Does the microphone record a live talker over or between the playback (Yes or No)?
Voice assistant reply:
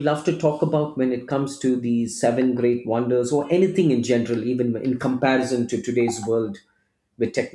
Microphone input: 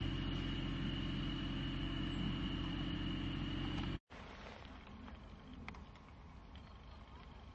No